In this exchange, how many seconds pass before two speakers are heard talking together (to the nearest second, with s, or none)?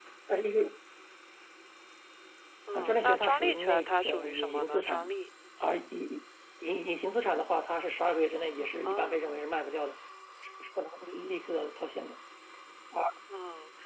3 s